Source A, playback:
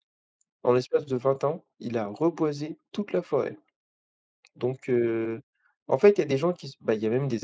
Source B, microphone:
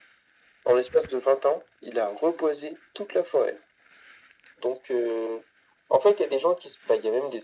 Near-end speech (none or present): none